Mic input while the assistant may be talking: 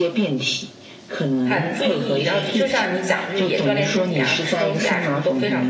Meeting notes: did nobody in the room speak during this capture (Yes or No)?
No